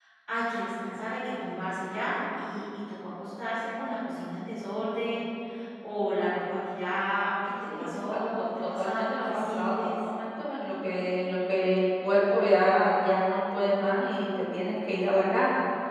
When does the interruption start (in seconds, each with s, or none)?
7.7 s